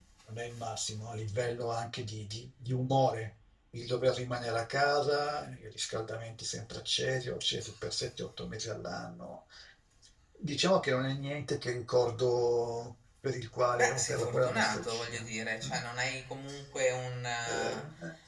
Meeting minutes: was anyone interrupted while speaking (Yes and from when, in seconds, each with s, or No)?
Yes, from 13.7 s